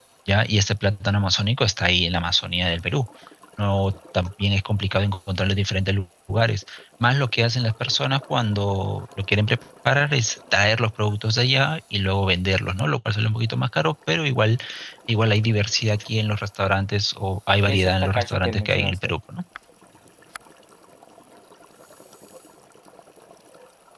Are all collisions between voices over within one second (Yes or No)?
No